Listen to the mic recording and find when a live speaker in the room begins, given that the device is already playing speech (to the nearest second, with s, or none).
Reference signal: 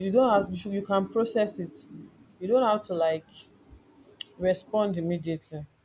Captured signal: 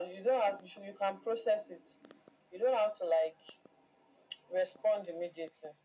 none